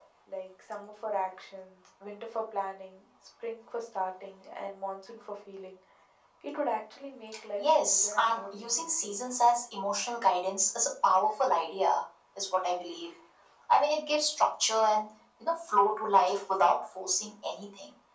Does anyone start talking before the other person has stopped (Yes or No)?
Yes